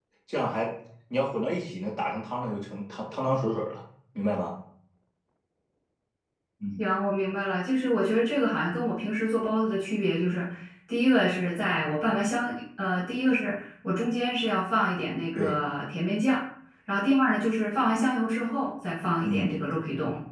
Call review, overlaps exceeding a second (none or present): none